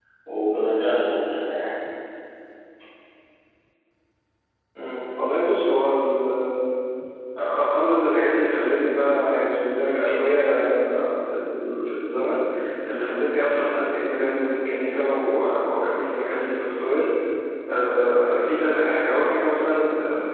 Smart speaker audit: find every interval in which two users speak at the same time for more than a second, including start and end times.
none

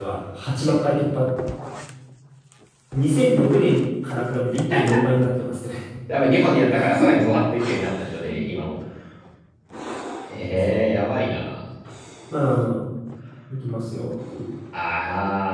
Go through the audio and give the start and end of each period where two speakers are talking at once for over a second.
none

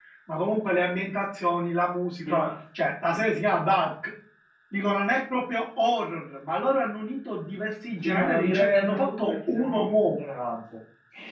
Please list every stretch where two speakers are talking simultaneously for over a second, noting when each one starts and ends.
8.0-10.2

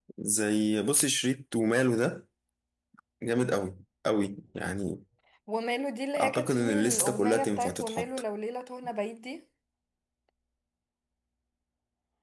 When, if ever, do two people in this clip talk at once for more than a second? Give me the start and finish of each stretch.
6.2-8.1

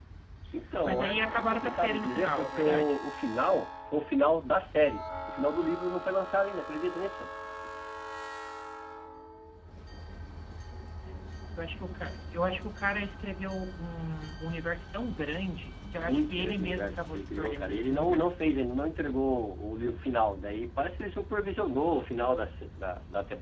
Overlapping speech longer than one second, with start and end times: 0.8-3.0, 16.0-18.5

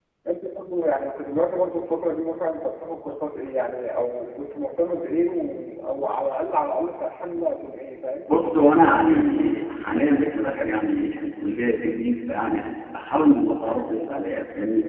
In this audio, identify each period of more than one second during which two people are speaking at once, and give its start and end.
none

